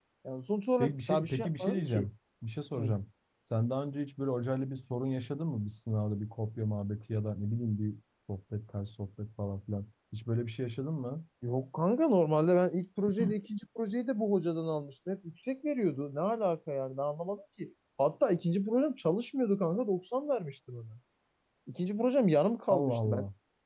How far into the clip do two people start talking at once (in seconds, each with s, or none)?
0.8 s